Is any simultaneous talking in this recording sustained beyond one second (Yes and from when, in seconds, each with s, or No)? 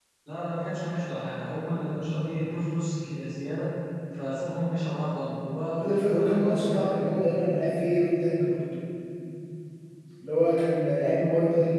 Yes, from 5.8 s